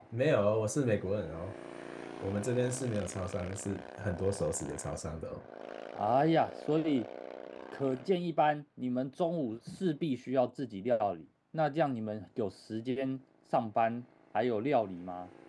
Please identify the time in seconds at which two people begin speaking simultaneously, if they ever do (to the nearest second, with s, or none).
none